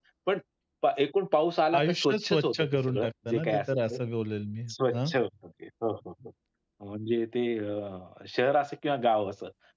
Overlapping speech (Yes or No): Yes